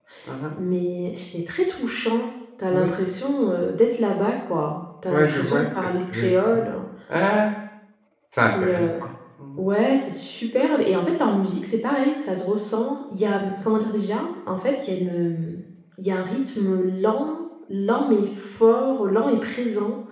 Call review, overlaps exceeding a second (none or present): present